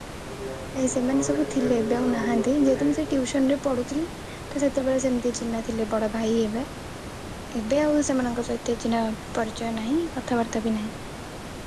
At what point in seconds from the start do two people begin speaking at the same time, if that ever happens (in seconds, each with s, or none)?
0.8 s